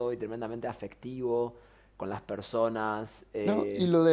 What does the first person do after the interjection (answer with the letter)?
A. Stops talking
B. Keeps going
A